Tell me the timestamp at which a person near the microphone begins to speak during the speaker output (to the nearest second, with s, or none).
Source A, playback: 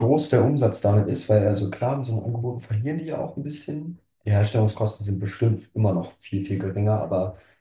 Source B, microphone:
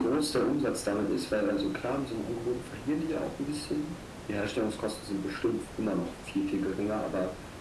none